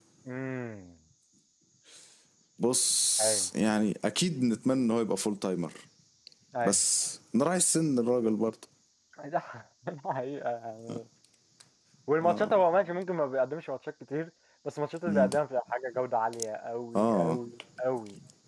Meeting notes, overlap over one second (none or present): none